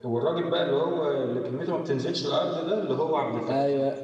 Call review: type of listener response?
taking over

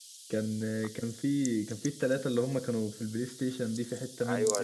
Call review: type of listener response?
taking over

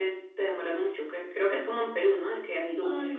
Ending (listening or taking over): listening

